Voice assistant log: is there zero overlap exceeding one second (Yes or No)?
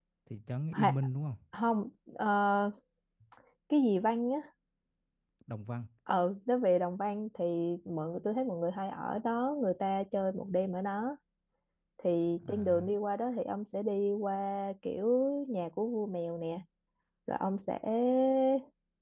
Yes